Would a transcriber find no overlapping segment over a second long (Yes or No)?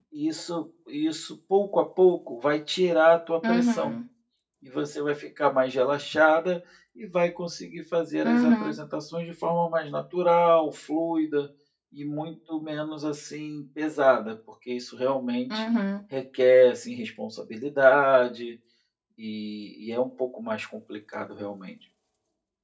Yes